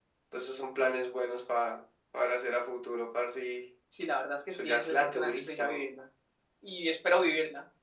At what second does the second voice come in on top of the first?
5 s

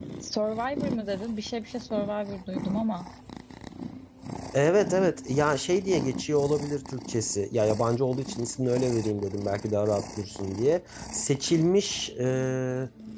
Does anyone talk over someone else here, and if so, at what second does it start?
none

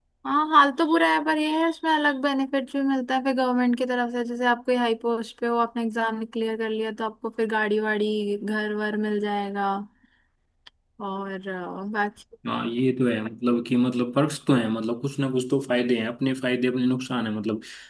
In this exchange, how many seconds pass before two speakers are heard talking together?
none

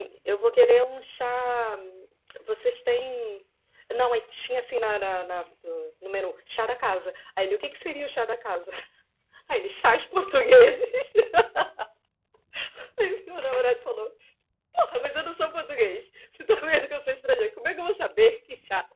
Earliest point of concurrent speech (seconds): none

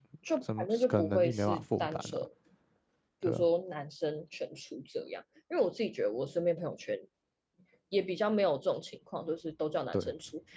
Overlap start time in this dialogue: 1 s

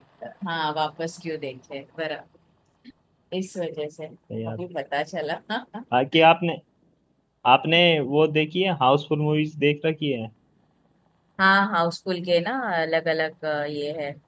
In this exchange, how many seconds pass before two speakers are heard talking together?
none

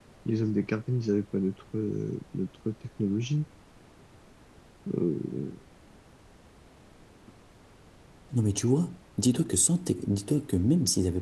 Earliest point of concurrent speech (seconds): none

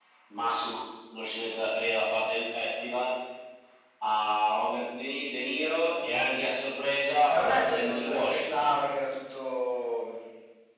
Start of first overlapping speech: 7 s

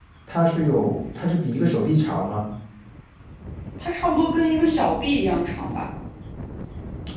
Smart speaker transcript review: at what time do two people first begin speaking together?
none

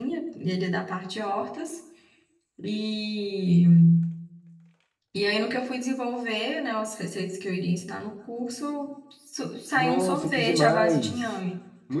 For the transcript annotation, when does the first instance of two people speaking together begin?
10 s

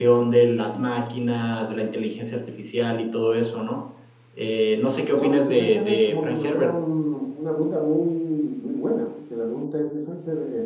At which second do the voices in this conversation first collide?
5 s

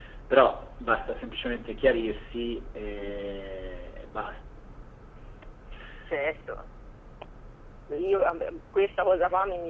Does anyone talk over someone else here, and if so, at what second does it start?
none

